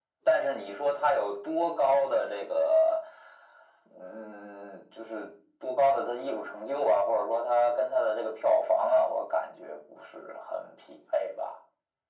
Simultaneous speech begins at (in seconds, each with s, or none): none